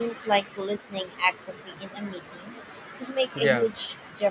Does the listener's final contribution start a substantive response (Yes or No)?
No